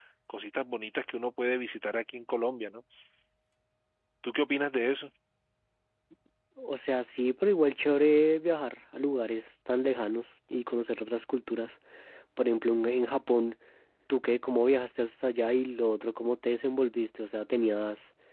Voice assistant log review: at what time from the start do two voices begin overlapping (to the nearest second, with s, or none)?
none